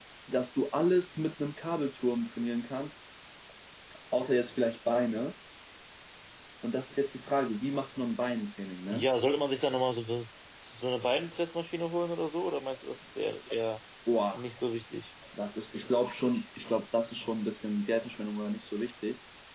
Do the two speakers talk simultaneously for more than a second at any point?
No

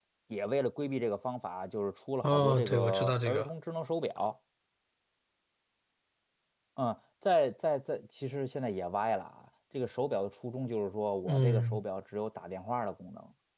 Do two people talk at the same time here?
Yes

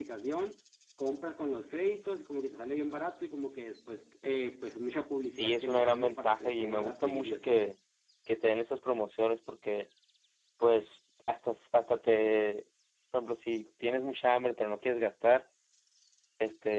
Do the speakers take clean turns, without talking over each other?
No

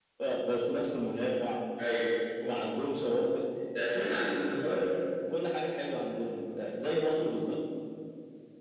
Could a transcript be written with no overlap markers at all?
Yes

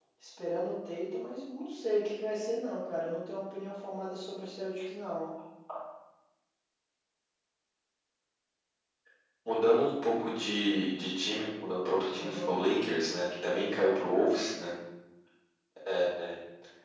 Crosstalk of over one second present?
No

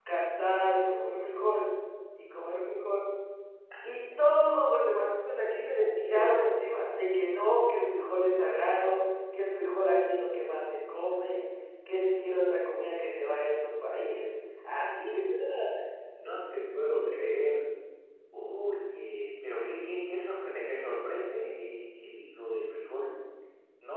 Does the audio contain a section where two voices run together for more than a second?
No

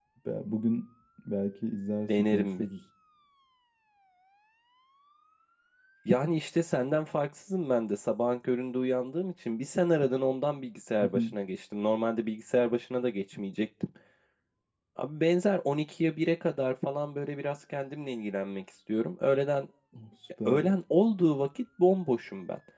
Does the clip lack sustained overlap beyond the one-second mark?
Yes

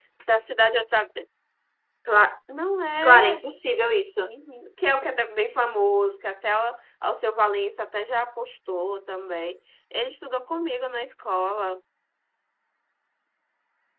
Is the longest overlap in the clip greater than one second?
No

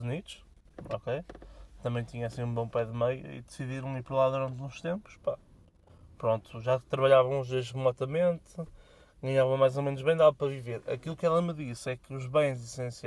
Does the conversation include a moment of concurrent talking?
No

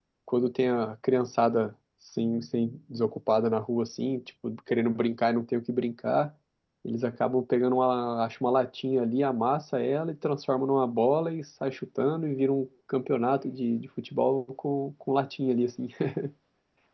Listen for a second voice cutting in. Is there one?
No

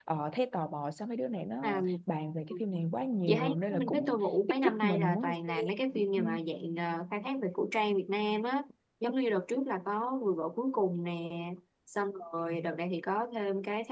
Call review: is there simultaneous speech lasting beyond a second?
Yes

